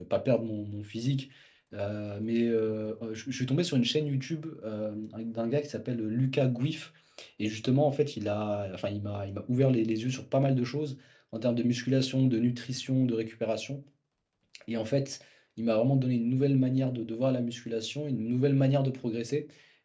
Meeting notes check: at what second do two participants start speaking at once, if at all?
none

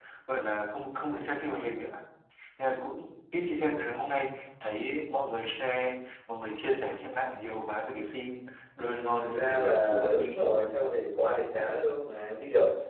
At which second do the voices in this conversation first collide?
8.8 s

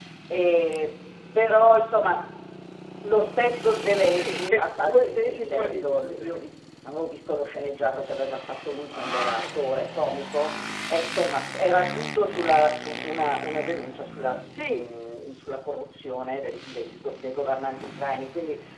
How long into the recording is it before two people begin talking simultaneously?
4.0 s

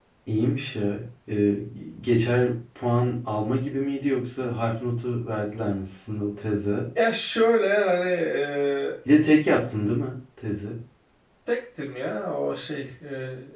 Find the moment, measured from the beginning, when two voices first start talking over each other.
none

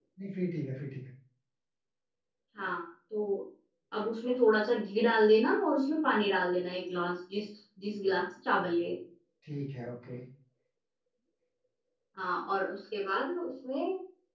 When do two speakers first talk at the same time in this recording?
none

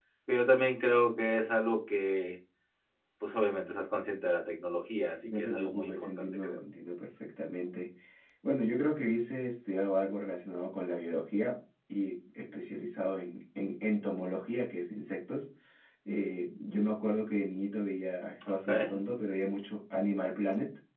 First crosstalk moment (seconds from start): 5.2 s

